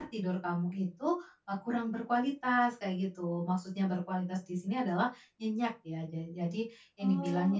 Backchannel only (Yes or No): Yes